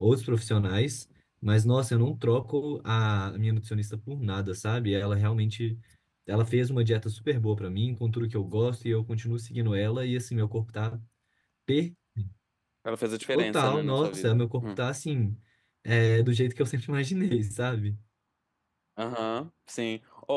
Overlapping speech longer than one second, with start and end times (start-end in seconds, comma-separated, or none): 13.3-14.8